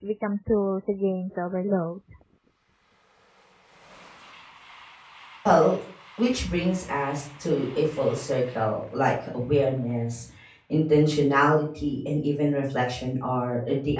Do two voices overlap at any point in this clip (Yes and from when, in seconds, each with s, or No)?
No